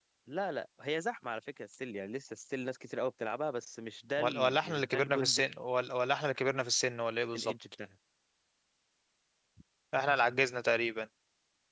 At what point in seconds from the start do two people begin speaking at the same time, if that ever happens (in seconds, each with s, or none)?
4.2 s